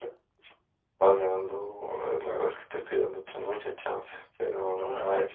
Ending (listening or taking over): taking over